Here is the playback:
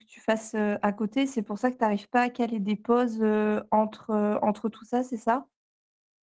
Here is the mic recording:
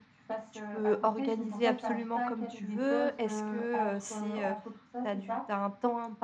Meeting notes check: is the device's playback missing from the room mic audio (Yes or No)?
No